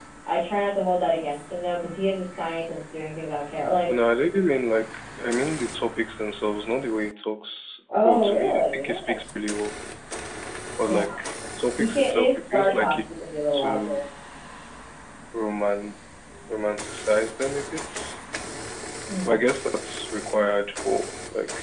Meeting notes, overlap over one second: present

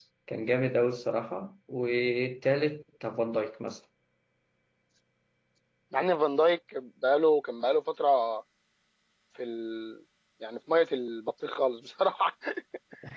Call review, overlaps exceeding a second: none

